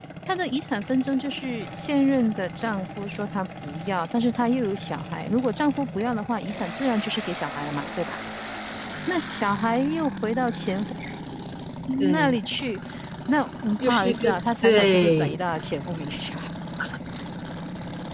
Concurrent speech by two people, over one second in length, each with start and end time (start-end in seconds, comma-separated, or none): 13.8-15.4